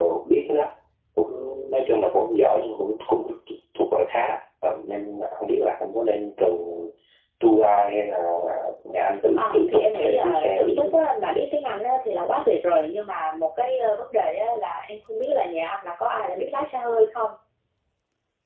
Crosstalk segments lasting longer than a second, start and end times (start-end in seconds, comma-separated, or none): 9.3-10.9